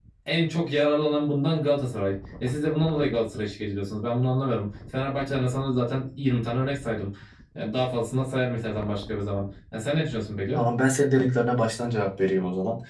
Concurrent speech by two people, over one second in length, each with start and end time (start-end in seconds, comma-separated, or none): none